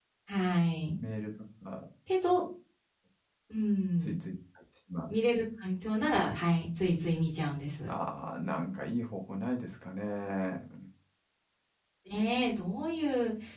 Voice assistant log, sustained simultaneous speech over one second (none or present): none